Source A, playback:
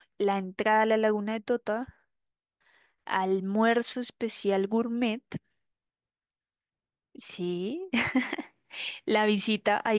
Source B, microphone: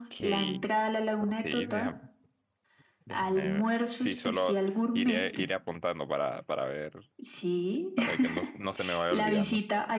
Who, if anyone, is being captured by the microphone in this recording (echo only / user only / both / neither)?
both